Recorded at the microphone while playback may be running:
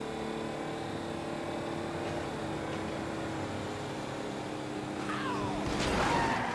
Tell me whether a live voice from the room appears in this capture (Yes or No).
No